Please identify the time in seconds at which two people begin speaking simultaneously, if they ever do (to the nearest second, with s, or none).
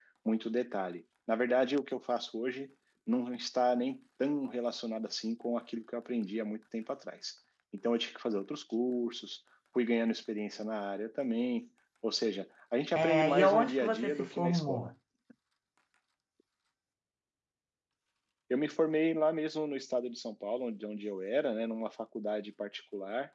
13 s